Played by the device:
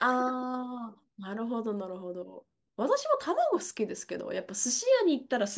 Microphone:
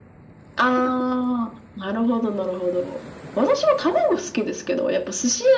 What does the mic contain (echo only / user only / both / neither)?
echo only